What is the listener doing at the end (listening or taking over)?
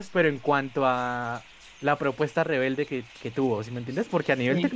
listening